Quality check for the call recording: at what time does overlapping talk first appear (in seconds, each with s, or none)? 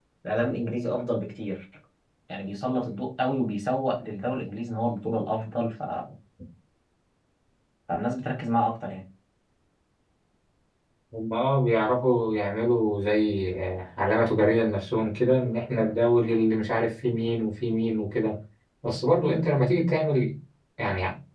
none